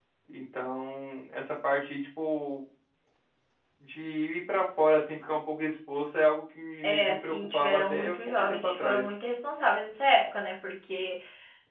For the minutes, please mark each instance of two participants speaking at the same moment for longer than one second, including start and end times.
6.8-9.1

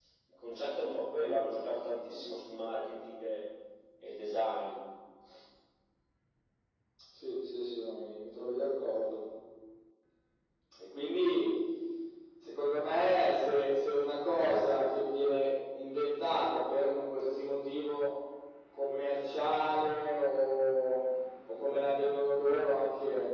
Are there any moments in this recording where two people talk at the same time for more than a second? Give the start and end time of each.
none

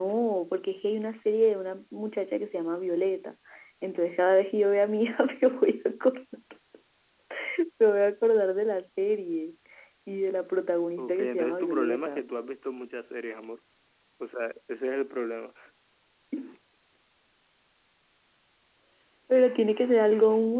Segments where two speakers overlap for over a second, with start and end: 11.0-12.2

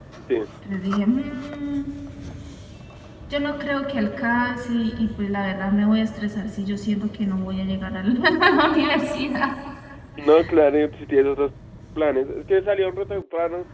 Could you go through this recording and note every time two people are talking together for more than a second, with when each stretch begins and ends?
none

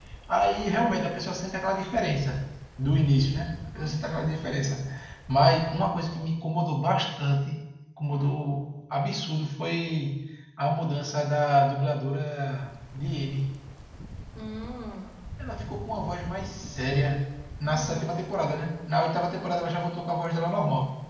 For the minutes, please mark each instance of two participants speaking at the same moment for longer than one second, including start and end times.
none

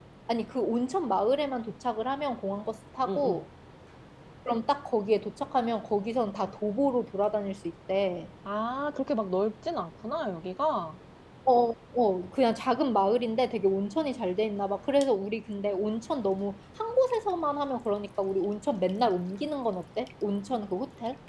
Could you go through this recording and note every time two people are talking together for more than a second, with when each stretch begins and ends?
none

